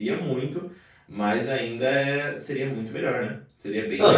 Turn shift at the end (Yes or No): Yes